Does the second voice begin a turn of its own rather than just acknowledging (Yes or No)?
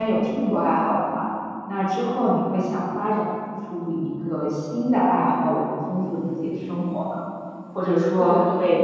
No